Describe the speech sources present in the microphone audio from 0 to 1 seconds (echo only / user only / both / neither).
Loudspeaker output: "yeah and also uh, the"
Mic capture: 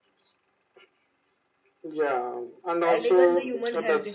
neither